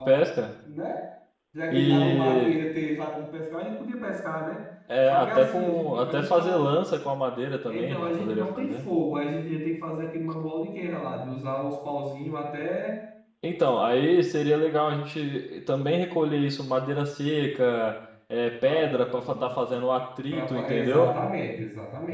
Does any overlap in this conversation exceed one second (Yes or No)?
Yes